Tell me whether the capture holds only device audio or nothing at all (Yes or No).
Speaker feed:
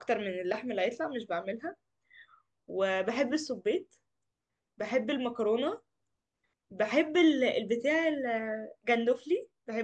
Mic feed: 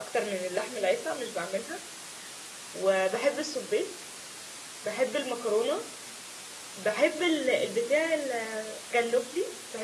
Yes